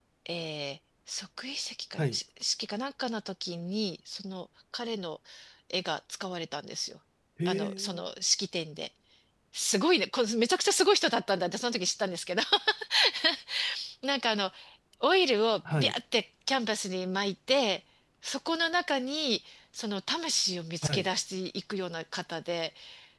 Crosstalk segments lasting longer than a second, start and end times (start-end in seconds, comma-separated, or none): none